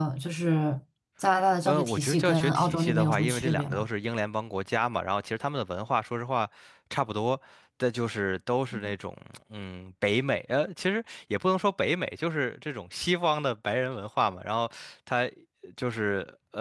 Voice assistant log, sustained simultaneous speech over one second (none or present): present